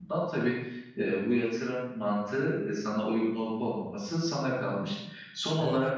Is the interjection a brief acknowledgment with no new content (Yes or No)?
Yes